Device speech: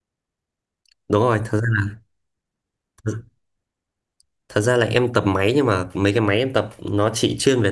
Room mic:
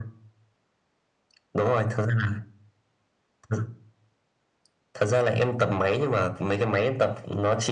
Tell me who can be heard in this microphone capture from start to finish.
echo only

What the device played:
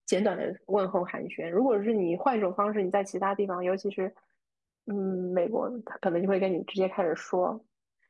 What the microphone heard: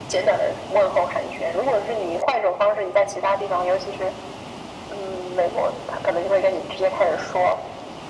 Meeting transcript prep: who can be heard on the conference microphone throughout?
echo only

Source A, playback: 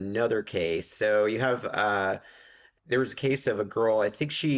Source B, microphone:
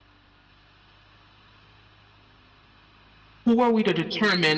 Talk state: user only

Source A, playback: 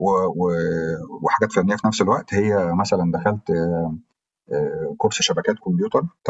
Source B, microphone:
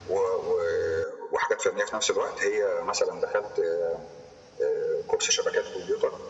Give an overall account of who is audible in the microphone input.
echo only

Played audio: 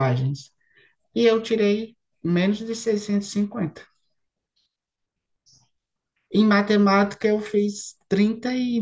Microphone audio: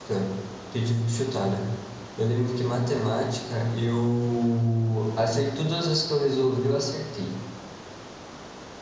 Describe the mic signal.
user only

